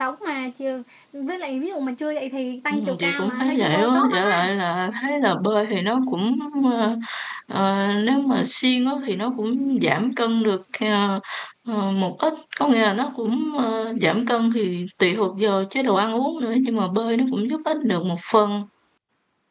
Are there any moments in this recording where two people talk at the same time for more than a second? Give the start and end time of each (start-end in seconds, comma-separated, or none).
2.7-4.5